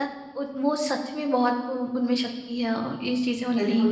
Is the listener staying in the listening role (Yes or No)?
No